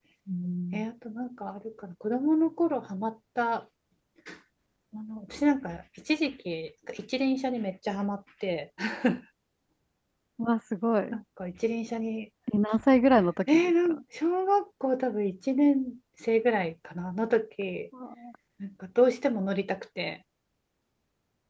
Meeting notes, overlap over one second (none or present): none